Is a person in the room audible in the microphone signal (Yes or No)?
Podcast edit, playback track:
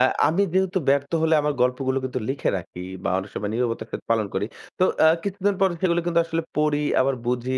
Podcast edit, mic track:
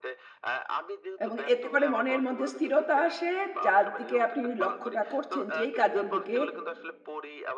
Yes